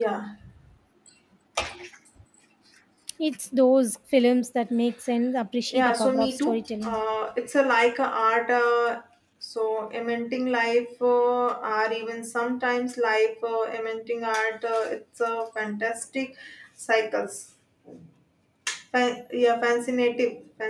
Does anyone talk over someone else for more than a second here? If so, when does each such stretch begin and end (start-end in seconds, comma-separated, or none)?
5.7-7.0